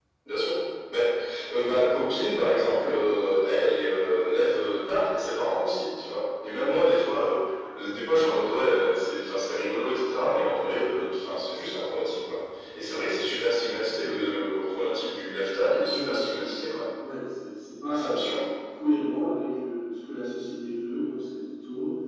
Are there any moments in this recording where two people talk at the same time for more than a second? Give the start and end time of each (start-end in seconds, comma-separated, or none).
15.6-16.8